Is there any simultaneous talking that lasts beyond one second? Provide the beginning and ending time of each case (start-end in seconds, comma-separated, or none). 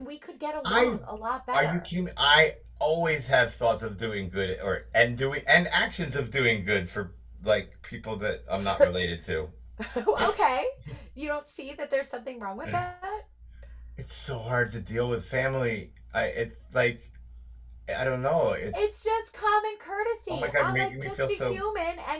20.3-21.6